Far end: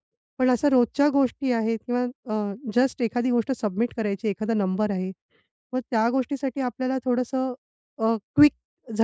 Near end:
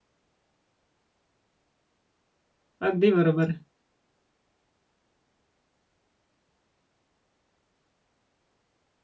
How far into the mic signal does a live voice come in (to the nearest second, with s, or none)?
3 s